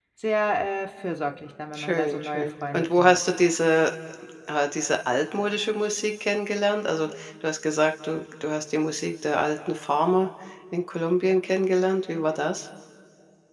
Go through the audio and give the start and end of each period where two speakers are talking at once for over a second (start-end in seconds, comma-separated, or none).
1.8-3.2